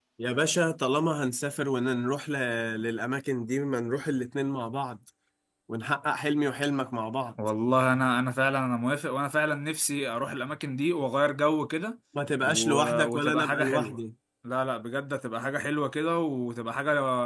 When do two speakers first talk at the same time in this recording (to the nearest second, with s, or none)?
12 s